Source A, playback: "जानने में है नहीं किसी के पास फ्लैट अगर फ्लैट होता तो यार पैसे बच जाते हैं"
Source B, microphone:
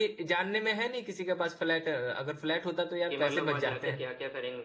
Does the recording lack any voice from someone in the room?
No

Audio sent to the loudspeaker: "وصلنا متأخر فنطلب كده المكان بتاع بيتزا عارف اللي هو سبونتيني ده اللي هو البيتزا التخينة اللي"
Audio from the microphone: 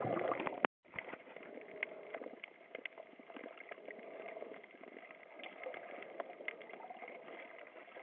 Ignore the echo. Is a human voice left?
No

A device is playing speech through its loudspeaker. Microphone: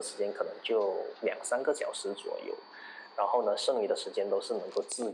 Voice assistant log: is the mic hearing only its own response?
Yes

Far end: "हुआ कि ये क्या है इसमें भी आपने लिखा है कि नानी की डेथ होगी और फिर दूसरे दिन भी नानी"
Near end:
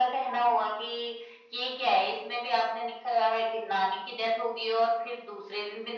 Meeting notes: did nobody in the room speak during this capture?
Yes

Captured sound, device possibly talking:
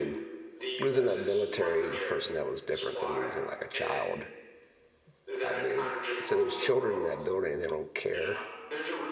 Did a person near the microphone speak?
Yes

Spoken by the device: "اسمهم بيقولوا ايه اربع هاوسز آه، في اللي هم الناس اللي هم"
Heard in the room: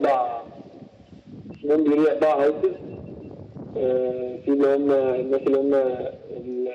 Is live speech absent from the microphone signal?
Yes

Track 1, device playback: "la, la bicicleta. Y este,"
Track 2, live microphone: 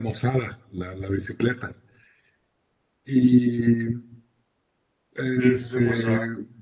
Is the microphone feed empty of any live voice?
No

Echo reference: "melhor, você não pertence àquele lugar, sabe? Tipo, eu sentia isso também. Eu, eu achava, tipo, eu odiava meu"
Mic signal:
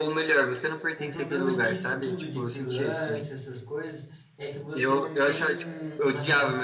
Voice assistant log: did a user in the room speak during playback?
Yes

